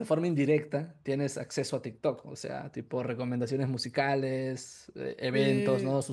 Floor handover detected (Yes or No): No